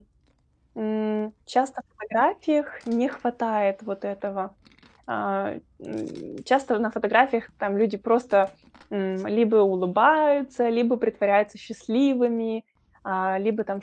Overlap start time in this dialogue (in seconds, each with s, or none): none